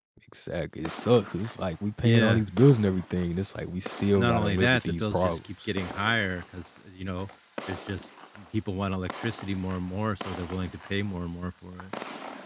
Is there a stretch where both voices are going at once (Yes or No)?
Yes